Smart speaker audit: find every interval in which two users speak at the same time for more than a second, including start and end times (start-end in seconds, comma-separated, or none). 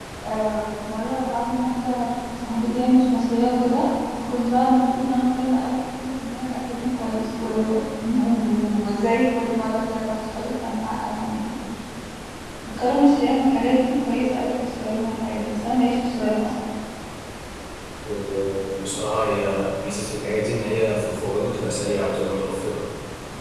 none